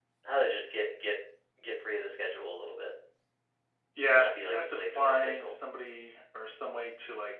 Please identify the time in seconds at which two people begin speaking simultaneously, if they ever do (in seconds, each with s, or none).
4.1 s